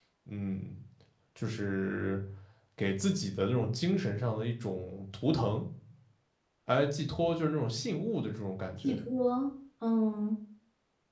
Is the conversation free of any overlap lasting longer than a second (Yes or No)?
Yes